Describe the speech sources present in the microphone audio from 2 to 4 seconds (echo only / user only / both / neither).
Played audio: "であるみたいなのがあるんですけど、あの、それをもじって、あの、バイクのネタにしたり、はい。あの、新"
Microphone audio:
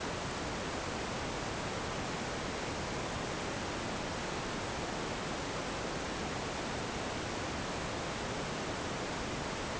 neither